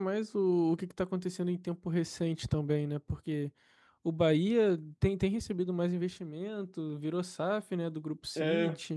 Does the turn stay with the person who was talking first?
No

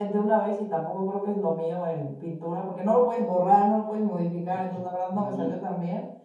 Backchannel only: Yes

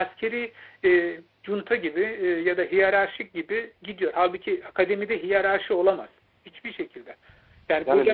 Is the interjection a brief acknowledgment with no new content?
Yes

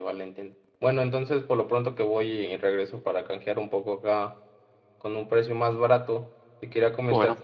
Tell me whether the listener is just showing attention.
Yes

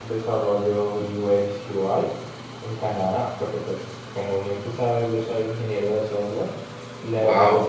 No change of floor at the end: Yes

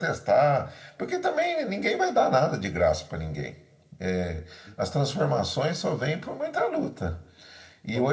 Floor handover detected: No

